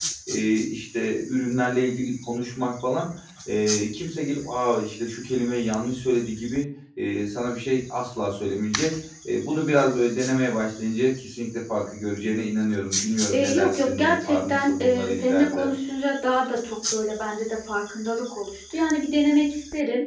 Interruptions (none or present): present